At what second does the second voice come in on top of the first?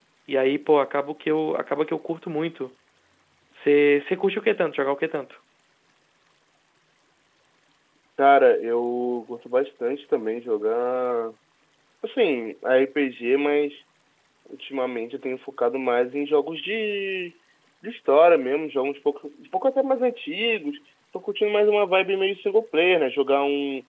none

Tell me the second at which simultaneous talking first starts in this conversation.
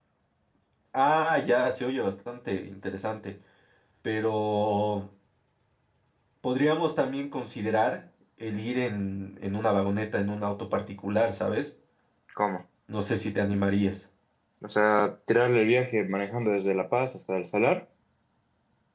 none

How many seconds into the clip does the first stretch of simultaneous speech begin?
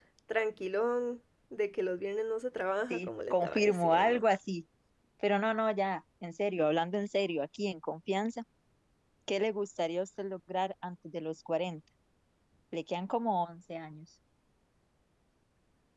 2.9 s

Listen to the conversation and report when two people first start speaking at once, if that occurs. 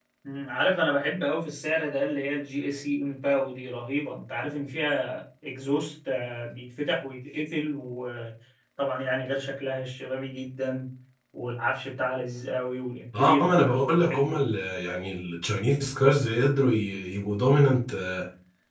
13.1 s

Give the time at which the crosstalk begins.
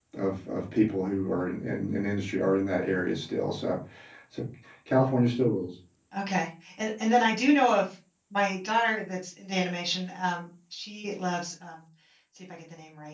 none

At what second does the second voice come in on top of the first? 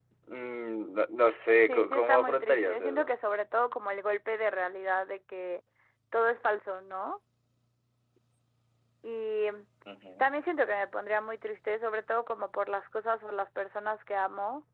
1.7 s

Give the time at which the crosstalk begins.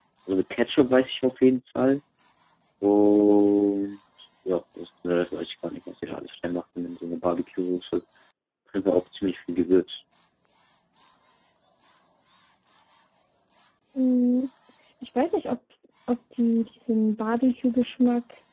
none

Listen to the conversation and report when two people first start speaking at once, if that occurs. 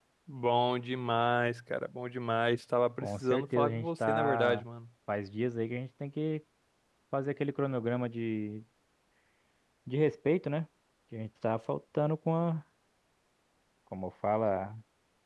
3.0 s

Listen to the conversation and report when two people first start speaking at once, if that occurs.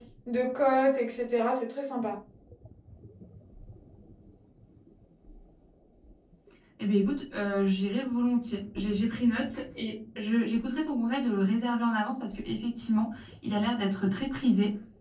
none

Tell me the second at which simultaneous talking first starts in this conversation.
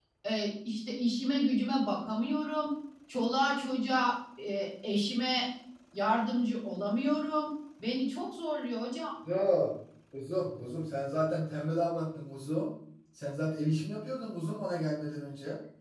none

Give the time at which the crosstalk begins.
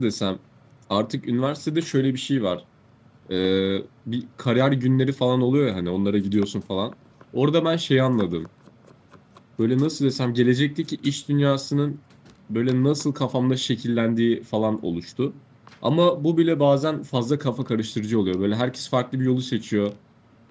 none

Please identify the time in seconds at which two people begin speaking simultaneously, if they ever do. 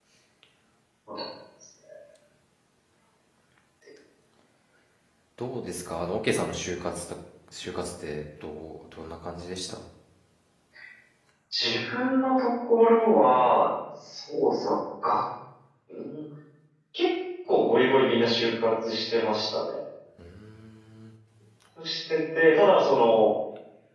none

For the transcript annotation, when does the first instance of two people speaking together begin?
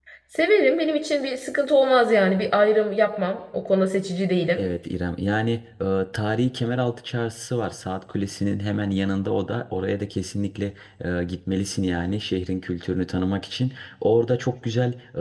none

